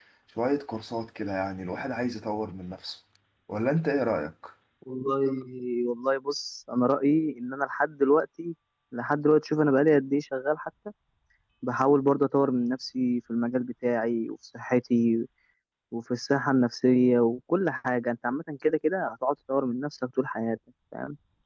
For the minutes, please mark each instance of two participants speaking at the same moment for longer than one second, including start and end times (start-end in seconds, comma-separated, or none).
none